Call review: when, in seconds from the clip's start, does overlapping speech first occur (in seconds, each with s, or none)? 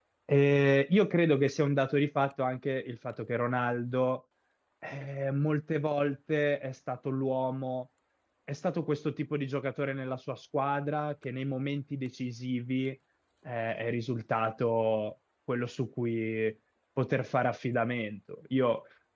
none